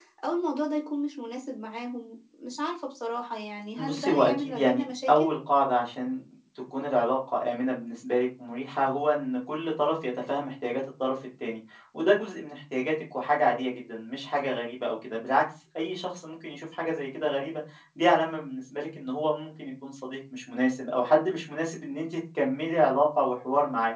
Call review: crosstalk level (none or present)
present